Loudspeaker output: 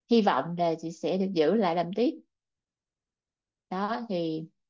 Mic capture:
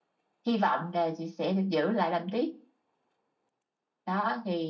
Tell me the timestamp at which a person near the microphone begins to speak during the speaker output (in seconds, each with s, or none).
none